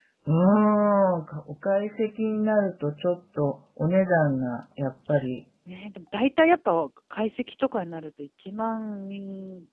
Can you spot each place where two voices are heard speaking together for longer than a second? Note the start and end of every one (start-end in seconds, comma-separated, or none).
none